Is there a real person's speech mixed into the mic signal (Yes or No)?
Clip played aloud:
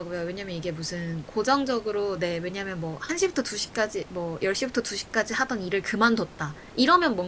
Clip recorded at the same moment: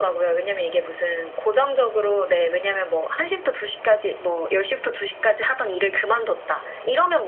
No